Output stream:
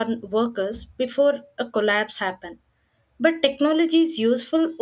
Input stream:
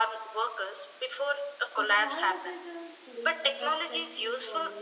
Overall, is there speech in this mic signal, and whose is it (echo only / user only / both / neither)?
both